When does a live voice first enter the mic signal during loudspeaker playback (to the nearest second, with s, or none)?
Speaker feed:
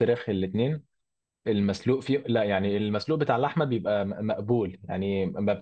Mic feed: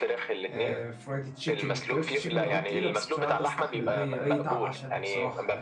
0 s